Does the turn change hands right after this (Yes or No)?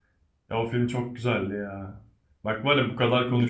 No